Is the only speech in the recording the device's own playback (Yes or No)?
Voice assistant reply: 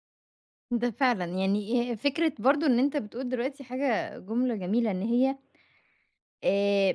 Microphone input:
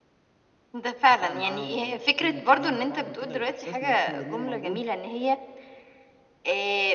No